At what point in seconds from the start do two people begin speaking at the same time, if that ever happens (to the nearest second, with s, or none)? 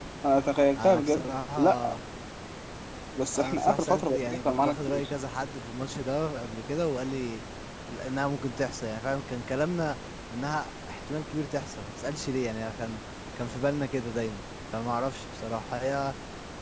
1 s